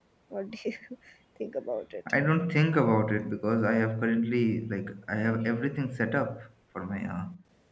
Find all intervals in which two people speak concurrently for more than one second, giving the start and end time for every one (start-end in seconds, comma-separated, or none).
none